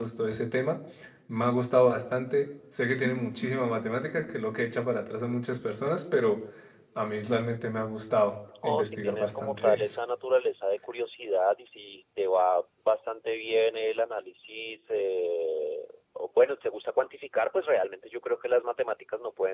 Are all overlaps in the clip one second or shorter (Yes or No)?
No